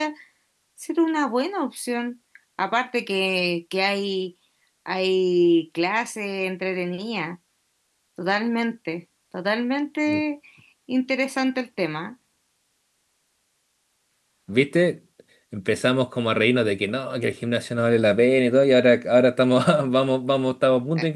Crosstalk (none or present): none